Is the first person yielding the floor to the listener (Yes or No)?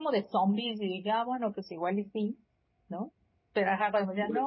No